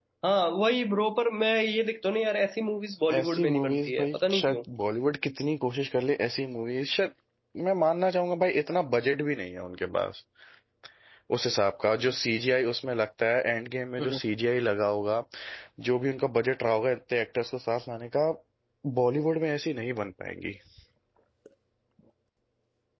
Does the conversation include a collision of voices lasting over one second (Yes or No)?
Yes